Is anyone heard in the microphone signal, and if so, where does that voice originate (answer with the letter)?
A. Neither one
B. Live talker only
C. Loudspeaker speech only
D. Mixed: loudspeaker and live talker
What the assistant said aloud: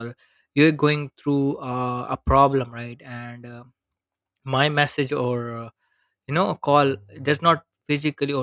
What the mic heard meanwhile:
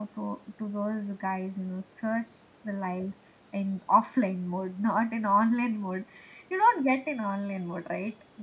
B